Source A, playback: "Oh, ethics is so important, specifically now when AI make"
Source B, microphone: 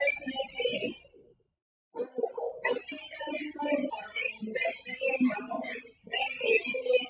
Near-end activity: none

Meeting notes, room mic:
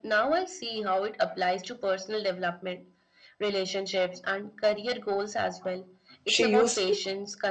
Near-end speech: present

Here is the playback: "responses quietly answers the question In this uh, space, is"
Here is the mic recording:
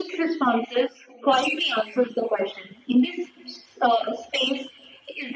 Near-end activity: none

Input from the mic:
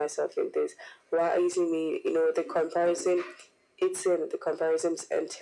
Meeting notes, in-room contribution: none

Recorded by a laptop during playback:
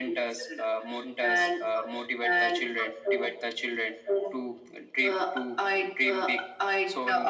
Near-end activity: none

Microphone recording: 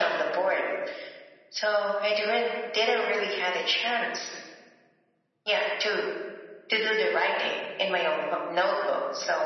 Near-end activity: none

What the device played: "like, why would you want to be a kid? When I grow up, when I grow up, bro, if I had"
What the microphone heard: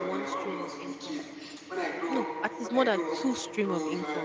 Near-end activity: present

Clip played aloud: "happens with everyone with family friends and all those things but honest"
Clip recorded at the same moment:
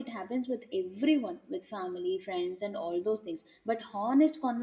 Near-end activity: none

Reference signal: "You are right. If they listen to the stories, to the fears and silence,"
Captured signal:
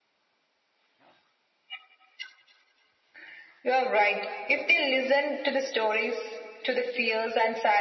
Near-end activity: none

